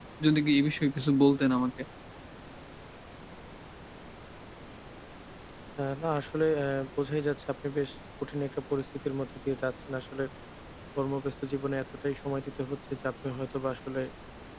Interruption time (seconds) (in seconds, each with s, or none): none